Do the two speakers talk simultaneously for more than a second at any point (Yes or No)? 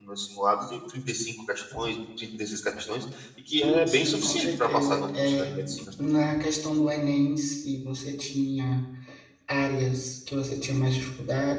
Yes